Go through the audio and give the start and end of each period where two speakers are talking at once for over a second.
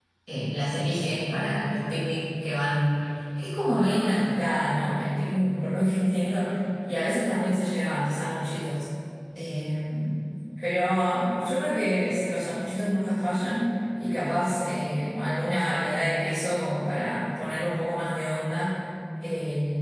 none

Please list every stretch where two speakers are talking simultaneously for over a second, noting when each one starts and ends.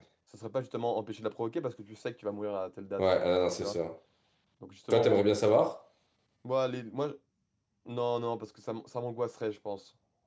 none

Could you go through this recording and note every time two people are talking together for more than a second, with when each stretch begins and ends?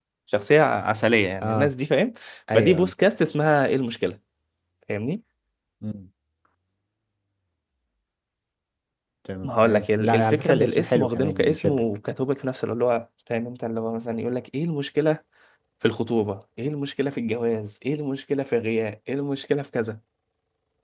9.4-11.8

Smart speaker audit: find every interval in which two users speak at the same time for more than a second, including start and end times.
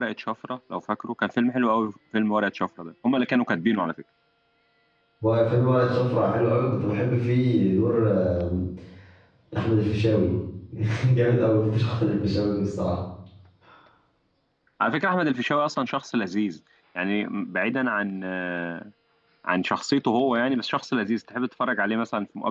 none

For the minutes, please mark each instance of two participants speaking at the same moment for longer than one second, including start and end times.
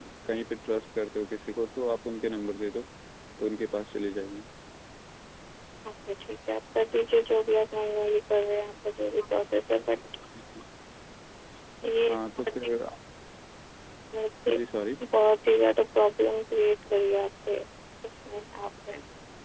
none

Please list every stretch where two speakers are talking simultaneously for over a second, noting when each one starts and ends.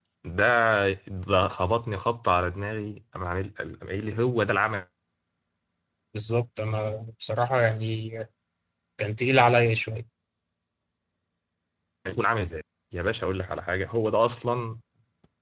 none

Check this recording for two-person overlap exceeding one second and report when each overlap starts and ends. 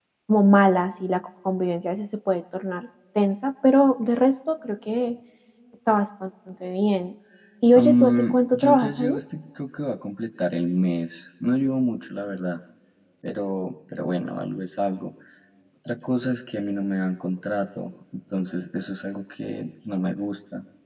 7.7-9.2

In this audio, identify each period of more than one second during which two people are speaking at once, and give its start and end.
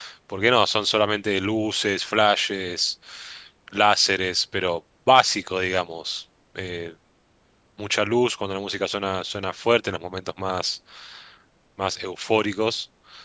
none

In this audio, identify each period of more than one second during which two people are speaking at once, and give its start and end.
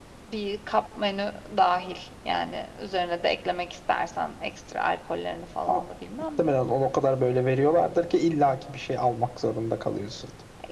none

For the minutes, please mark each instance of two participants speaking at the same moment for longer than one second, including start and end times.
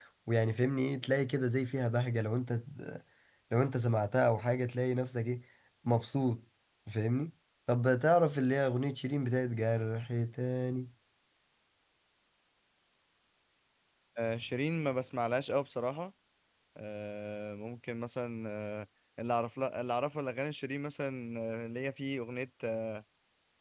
none

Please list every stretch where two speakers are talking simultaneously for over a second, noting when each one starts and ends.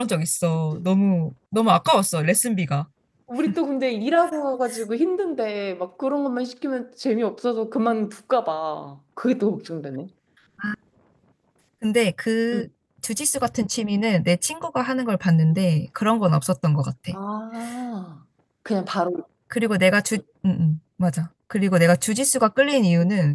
none

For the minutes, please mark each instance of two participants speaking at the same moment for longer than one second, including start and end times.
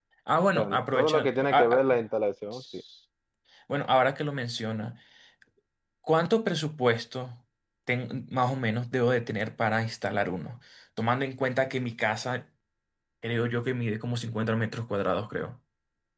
0.6-2.0

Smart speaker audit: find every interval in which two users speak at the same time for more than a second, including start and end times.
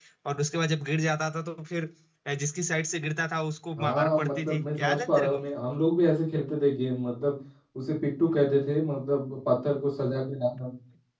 3.8-5.4

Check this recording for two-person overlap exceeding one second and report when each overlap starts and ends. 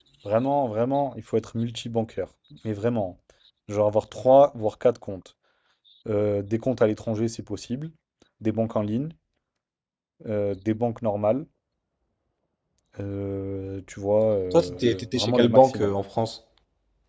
14.5-15.9

